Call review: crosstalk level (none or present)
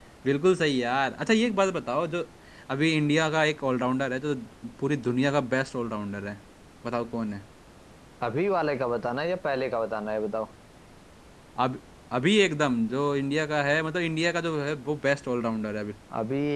none